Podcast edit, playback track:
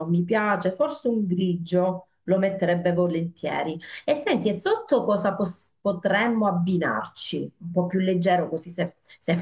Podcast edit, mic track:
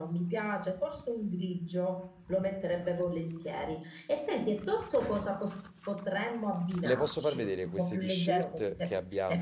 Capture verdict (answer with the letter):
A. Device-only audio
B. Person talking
B